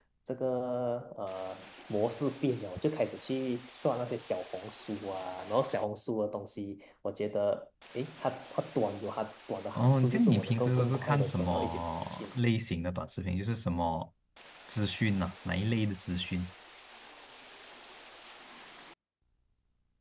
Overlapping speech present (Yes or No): Yes